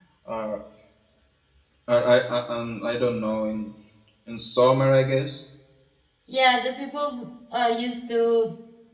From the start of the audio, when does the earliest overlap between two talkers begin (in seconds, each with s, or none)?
none